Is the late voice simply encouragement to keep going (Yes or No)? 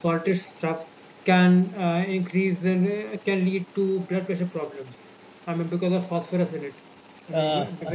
No